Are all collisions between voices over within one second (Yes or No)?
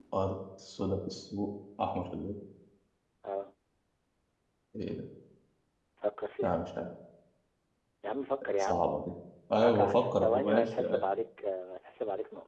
No